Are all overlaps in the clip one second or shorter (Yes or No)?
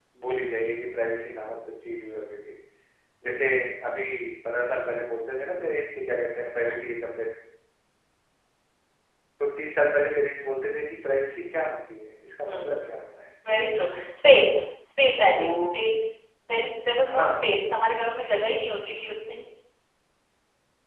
Yes